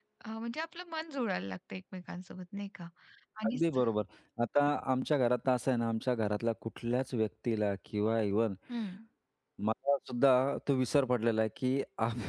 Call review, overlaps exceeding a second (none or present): none